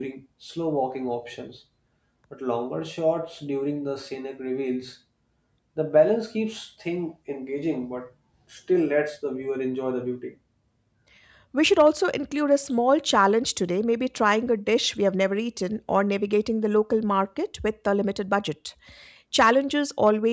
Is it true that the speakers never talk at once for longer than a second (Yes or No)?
Yes